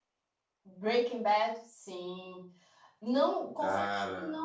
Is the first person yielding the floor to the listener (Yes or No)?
No